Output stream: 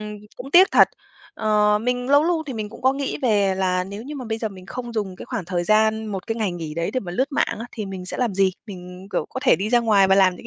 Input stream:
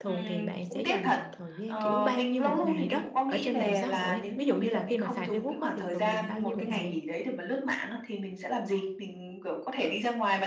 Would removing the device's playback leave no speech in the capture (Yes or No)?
No